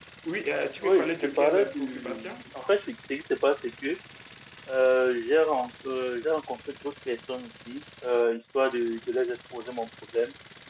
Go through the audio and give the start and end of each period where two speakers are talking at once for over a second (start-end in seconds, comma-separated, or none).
0.8-2.3